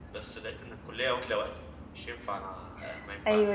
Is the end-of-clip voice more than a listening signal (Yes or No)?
Yes